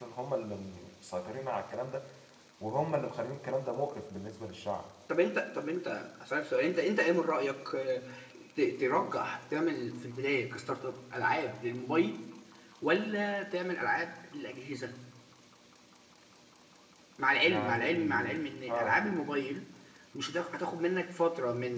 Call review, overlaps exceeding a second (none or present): present